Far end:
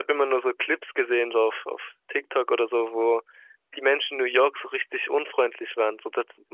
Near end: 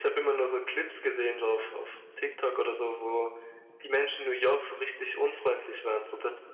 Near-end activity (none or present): none